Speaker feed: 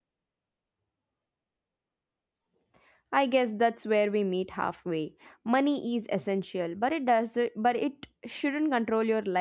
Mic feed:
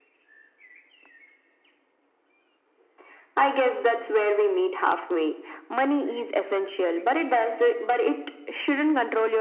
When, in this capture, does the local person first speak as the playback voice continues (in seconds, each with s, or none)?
none